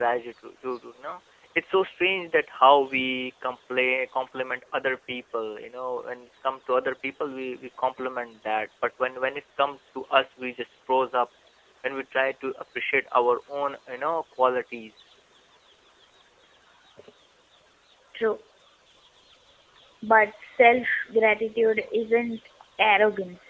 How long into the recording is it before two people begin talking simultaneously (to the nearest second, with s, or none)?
none